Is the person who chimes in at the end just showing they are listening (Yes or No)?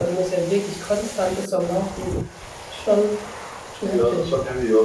No